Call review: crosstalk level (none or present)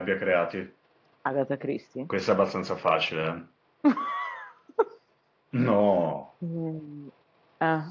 none